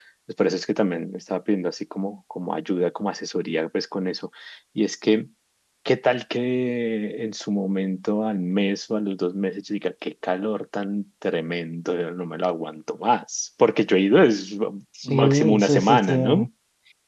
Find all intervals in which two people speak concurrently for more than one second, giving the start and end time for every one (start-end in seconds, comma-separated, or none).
15.1-16.5